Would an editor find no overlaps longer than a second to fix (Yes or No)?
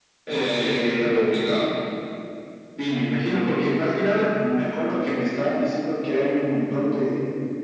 No